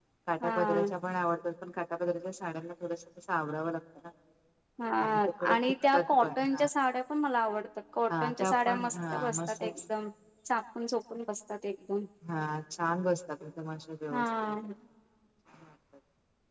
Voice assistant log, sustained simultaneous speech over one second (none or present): present